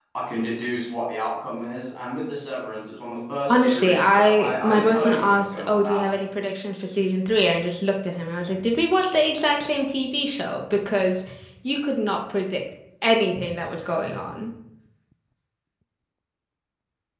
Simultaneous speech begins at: 3.5 s

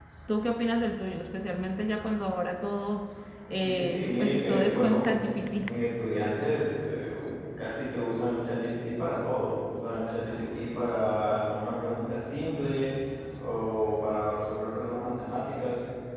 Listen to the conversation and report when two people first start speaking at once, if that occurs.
3.5 s

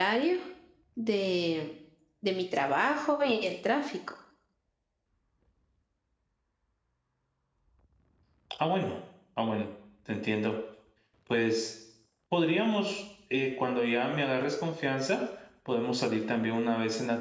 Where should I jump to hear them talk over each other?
none

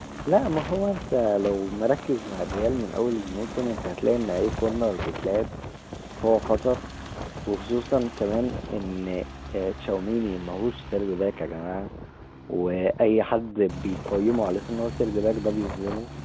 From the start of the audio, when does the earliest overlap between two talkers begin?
none

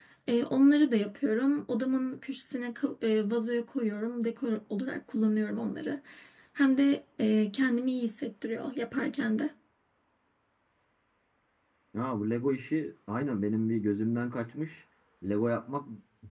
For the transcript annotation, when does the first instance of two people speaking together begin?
none

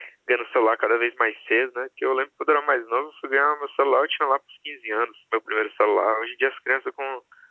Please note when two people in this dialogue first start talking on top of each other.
none

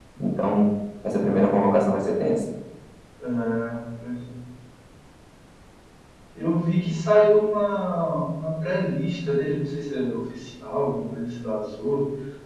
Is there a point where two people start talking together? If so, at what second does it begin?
none

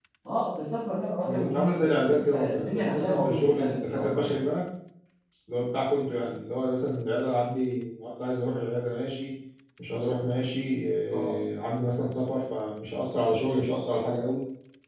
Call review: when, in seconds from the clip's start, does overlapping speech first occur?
1.2 s

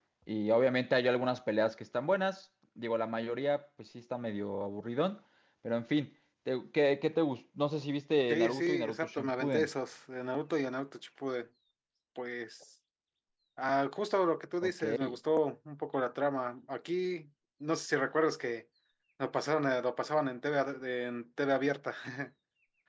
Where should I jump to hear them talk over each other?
8.3 s

